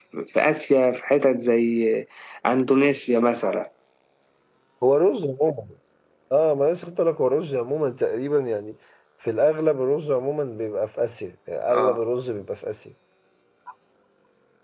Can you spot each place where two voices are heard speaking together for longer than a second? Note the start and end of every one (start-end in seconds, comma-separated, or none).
none